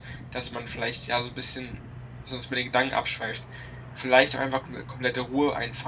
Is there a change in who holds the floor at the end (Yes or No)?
No